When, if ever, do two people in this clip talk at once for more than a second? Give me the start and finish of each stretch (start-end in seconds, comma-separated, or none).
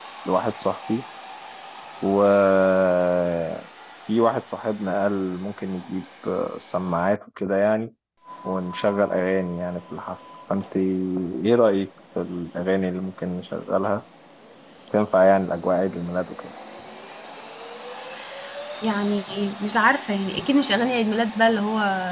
none